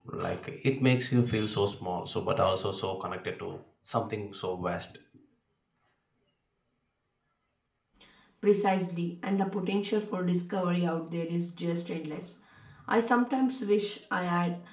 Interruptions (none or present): none